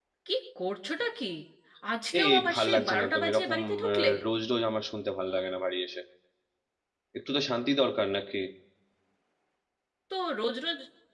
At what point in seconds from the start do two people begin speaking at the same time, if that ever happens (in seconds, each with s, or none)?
2.2 s